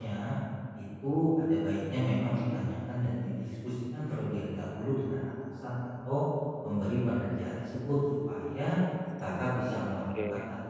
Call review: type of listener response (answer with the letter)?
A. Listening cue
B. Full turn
A